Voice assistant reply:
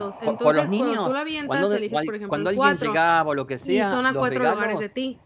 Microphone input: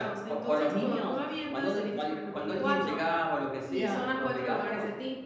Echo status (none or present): present